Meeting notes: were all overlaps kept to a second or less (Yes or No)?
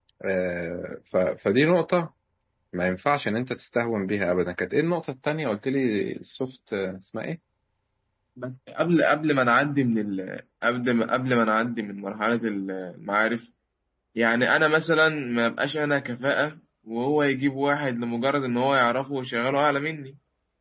Yes